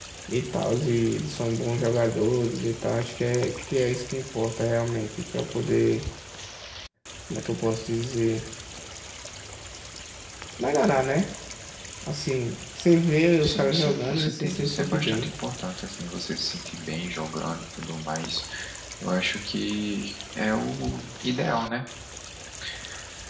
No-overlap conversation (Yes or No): No